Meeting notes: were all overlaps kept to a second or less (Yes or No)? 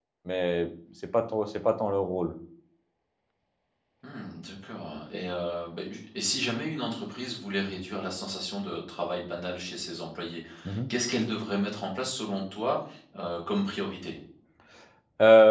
Yes